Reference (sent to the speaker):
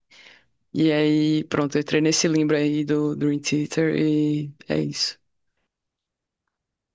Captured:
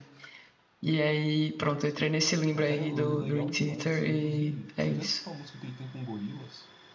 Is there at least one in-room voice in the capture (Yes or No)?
Yes